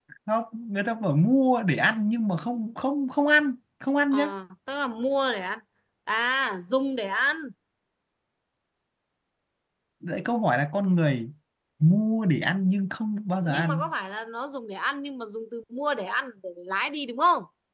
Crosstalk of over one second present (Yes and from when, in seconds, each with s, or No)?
No